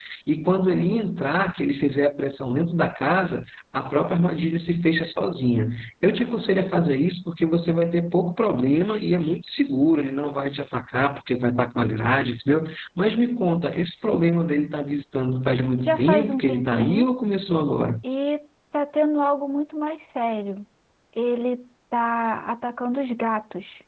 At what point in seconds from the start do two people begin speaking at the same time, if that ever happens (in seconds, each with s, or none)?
15.8 s